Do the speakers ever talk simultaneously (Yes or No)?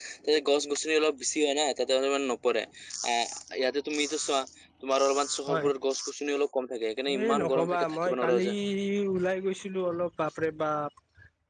Yes